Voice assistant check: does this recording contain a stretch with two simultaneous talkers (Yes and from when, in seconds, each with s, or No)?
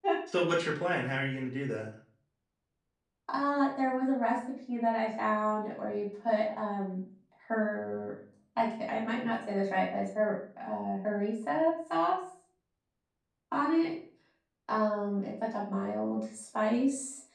No